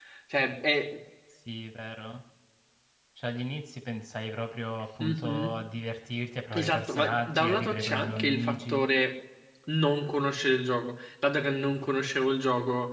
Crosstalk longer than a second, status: present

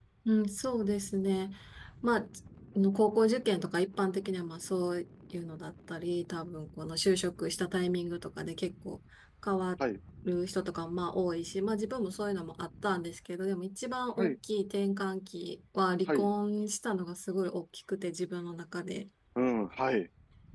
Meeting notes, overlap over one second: none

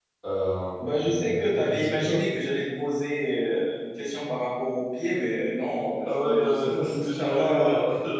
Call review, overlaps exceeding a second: present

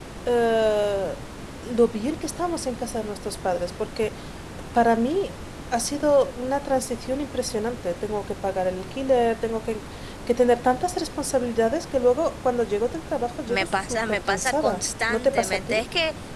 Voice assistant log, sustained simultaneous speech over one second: present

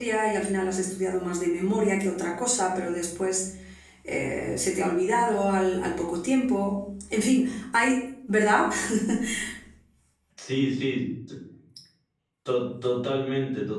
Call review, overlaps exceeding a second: none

